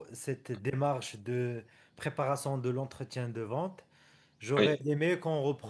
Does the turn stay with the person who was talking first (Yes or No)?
Yes